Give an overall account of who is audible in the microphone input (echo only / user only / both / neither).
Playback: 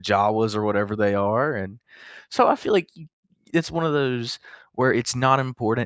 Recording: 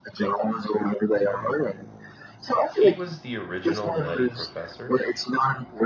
both